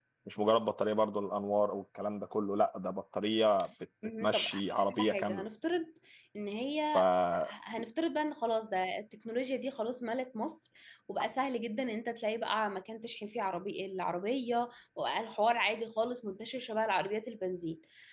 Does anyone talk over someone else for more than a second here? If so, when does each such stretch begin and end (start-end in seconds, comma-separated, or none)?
4.2-5.5